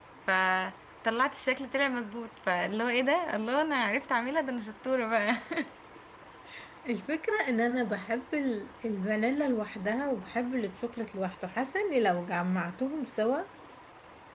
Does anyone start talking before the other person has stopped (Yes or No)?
No